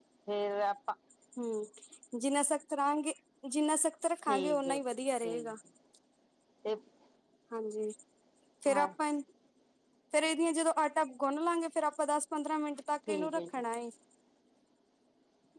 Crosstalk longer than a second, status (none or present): present